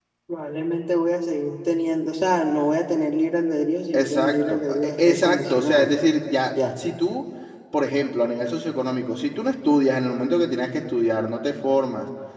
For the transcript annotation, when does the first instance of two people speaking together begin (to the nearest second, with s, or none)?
4 s